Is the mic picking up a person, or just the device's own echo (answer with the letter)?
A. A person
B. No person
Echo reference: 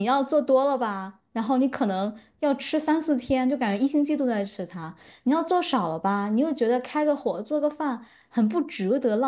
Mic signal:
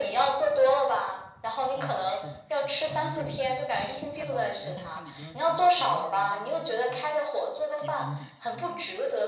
A